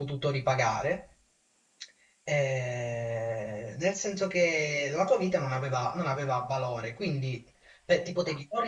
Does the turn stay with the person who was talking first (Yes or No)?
Yes